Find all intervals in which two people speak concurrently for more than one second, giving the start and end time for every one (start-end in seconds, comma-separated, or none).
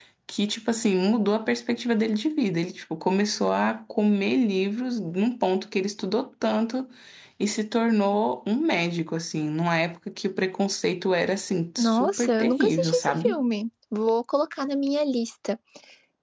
11.8-13.4